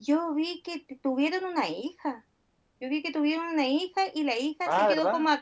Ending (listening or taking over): listening